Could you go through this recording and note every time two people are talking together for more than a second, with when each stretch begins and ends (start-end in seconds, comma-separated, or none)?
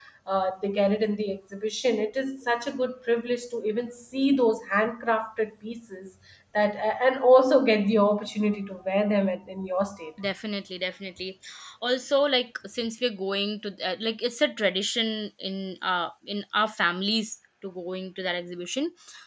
none